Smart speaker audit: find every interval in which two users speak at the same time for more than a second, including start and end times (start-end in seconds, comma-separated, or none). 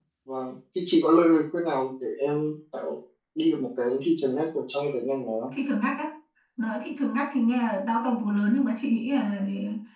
none